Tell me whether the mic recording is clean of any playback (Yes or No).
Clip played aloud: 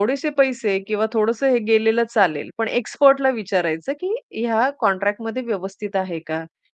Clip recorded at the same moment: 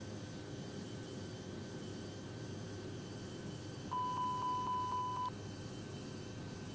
Yes